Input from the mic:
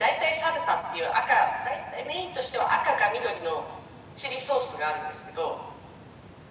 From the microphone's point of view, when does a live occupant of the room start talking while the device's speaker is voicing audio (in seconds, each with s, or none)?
none